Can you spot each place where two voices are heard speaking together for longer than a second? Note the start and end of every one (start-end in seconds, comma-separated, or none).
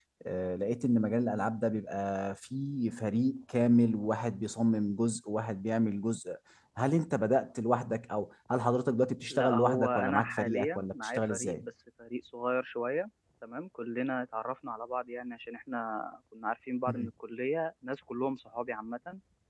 9.3-11.6